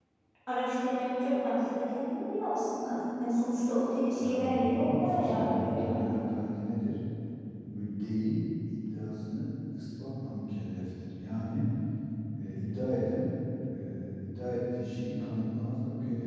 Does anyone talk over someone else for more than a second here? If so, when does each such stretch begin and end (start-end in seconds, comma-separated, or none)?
4.2-6.2